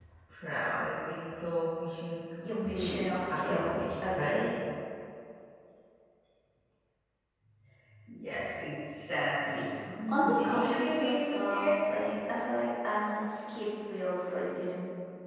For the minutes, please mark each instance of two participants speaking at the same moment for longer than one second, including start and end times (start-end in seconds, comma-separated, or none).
2.4-4.4, 10.1-11.7